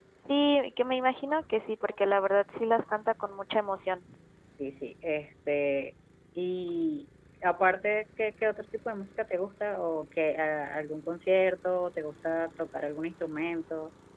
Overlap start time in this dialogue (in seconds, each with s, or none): none